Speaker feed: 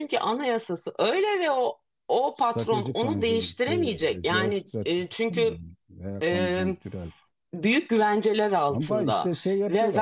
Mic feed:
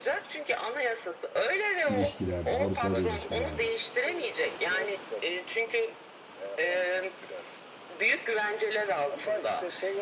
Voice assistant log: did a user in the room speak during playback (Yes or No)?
Yes